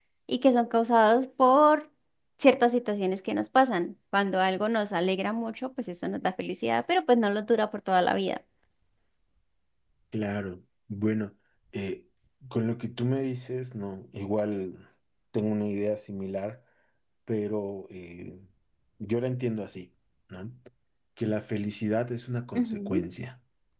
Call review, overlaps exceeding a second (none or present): none